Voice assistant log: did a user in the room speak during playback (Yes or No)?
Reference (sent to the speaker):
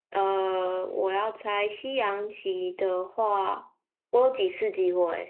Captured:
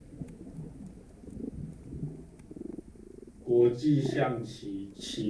Yes